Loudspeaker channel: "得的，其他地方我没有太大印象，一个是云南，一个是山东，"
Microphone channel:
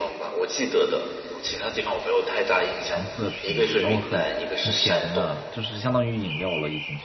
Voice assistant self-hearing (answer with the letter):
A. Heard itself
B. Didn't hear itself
A